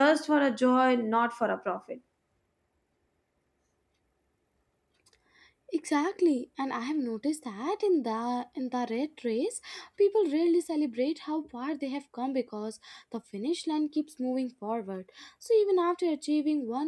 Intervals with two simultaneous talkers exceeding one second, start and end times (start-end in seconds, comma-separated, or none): none